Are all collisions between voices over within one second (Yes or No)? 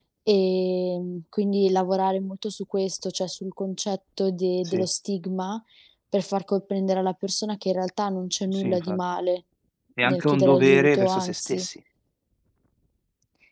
No